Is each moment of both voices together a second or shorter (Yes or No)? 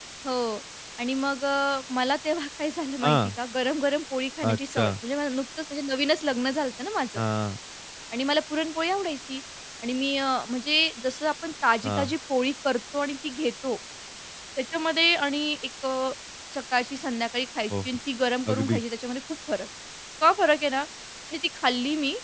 Yes